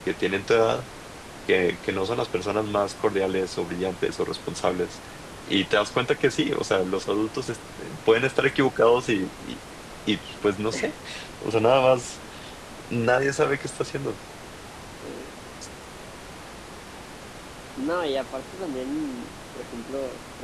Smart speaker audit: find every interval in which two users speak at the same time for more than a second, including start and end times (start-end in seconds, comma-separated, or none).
none